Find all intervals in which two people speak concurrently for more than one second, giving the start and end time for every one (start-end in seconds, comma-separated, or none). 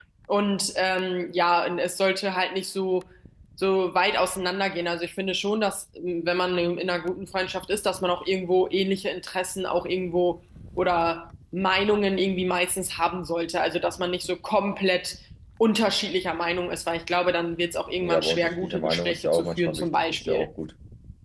18.0-20.5